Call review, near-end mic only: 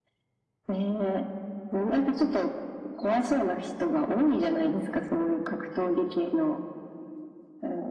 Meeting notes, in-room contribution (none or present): none